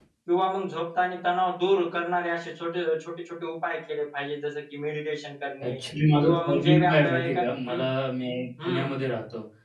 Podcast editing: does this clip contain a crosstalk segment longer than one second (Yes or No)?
Yes